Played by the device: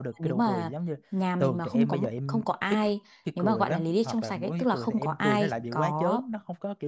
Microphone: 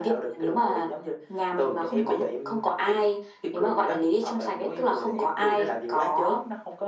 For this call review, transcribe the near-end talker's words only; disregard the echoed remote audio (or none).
none